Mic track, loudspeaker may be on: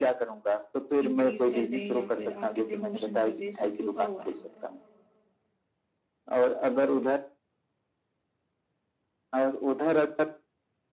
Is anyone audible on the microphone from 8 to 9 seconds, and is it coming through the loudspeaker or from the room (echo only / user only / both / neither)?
neither